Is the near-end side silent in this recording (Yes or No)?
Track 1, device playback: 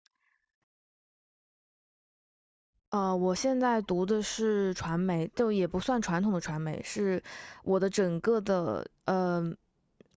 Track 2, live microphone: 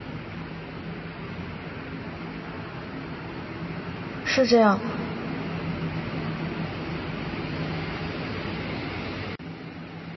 No